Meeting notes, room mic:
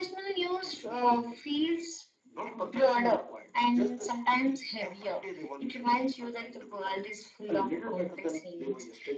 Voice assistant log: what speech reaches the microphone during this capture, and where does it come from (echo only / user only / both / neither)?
echo only